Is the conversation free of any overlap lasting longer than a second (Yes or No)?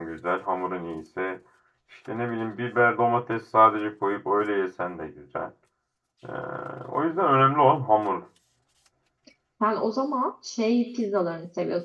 Yes